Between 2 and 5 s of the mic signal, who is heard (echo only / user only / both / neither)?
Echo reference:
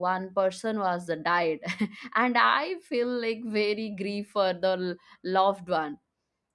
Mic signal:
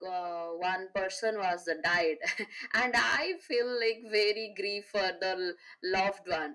echo only